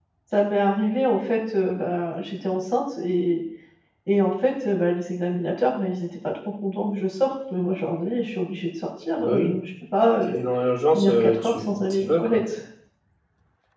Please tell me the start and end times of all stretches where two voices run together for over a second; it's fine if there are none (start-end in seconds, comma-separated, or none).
10.9-12.4